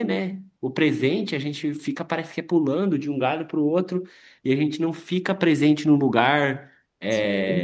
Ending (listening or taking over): listening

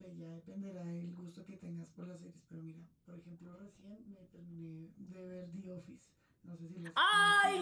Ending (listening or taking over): taking over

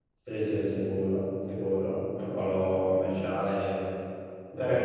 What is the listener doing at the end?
listening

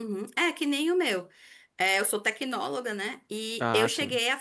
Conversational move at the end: listening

